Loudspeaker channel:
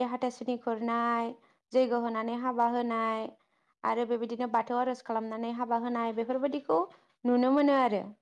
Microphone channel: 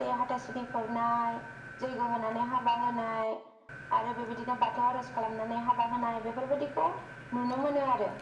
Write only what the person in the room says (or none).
none